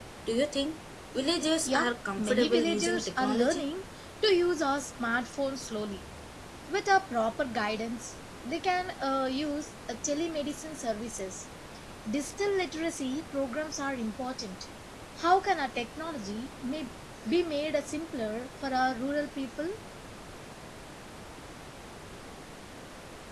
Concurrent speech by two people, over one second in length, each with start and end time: 1.6-3.6

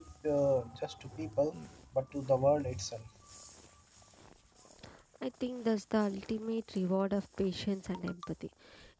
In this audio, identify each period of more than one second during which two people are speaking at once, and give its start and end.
none

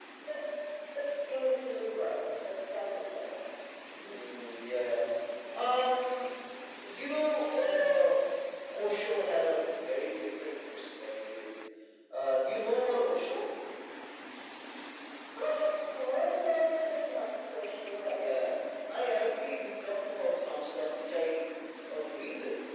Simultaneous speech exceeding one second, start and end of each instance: none

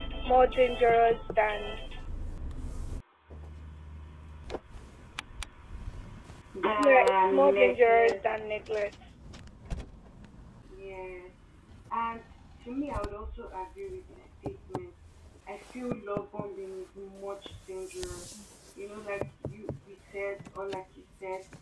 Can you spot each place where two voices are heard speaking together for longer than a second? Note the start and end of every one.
6.8-8.2

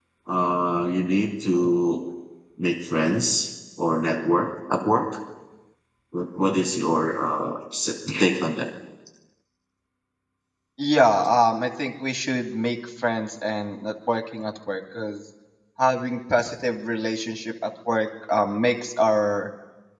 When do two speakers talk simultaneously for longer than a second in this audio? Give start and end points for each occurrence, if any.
none

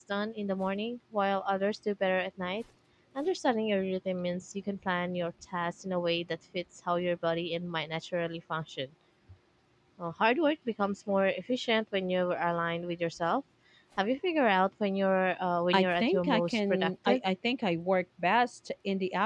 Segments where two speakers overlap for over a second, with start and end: 15.7-17.2

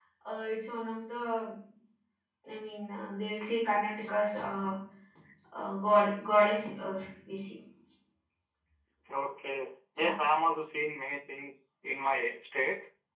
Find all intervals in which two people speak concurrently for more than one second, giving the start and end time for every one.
none

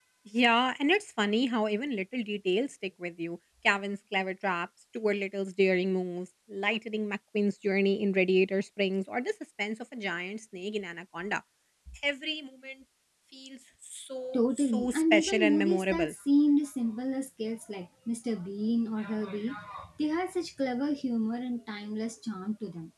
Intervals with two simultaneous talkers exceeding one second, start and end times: 14.3-16.1

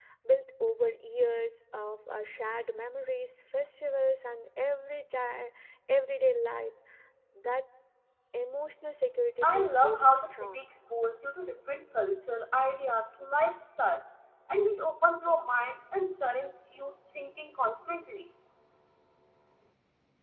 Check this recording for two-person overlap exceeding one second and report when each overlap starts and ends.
9.4-10.7

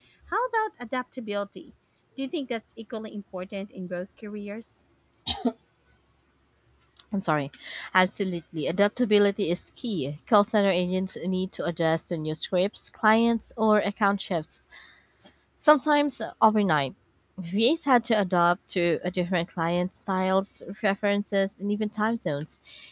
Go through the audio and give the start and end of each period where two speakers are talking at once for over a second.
none

